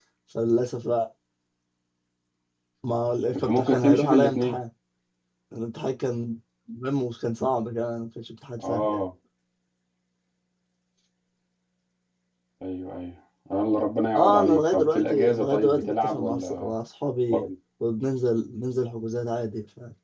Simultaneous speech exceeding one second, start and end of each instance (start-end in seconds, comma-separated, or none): 3.3-4.6, 14.2-16.7